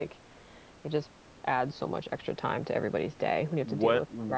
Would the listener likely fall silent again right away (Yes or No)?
No